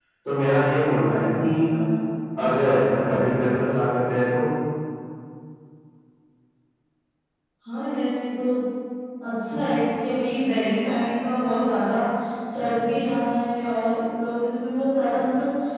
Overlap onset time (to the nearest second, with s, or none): none